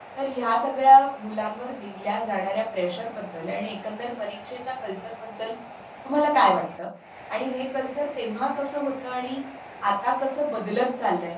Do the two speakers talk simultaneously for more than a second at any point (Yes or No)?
No